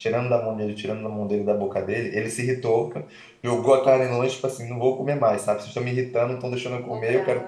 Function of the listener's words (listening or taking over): listening